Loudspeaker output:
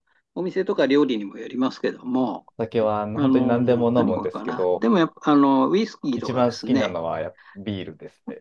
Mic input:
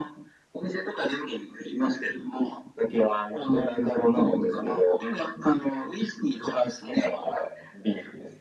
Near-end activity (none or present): none